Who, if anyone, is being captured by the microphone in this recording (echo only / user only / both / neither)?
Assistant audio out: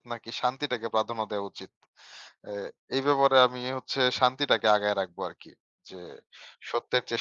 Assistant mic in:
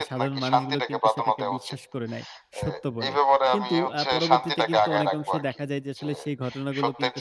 both